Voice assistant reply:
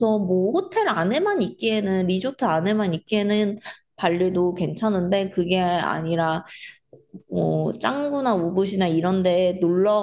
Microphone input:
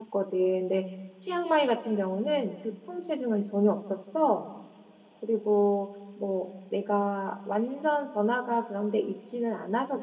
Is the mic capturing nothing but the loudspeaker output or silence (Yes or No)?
No